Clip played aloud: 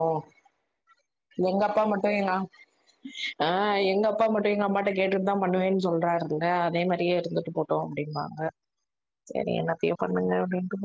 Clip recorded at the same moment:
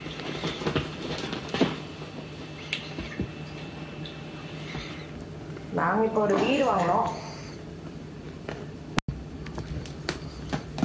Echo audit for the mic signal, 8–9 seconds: neither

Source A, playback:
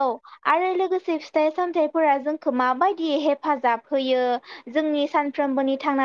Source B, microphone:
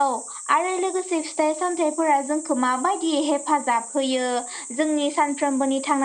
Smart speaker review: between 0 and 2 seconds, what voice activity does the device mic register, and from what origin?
echo only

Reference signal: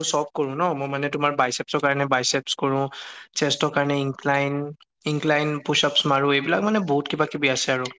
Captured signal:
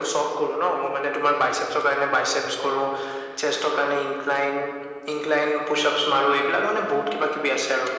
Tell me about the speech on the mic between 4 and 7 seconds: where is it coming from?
echo only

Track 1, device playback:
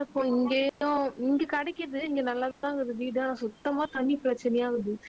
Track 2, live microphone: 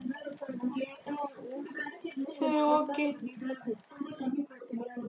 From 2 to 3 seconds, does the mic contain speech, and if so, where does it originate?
both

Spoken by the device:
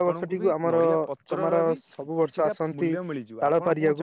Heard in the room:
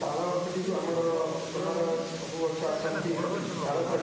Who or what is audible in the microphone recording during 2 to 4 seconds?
both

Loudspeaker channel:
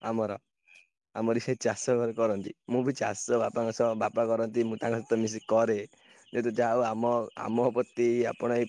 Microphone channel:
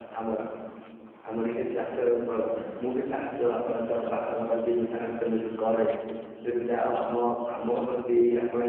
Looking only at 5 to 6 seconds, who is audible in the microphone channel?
echo only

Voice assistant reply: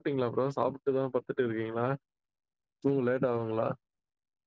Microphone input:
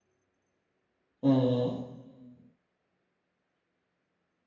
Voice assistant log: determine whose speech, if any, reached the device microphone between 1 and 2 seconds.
user only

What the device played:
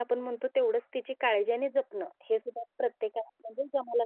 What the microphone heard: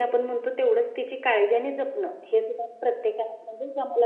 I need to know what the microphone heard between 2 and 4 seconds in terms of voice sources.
echo only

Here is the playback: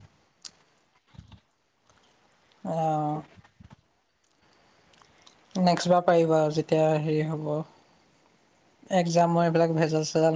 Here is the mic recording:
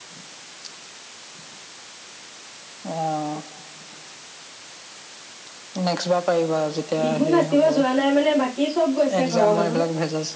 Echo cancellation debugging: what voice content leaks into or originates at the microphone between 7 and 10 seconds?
both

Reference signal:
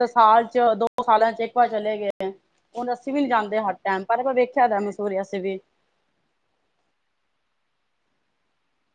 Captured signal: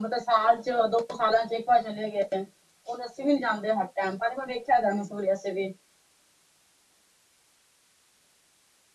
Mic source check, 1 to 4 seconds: echo only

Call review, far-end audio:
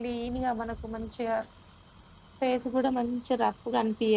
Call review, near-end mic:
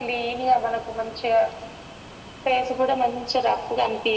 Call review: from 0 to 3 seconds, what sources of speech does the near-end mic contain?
echo only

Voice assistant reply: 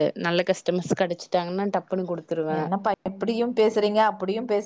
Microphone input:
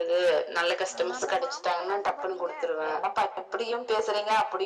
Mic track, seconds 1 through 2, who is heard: both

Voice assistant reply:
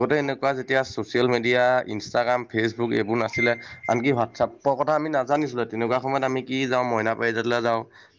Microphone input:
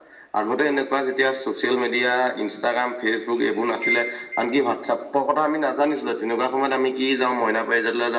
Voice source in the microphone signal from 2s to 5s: echo only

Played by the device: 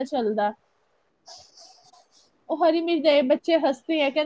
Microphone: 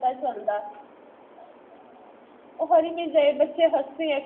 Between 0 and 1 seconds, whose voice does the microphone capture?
echo only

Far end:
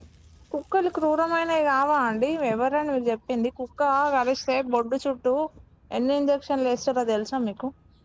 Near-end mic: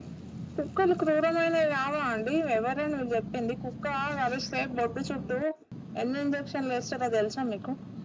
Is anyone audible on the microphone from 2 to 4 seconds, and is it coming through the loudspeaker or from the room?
echo only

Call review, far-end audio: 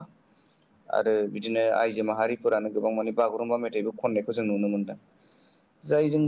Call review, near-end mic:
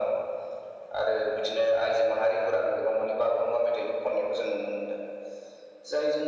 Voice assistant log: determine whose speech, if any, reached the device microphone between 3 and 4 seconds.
echo only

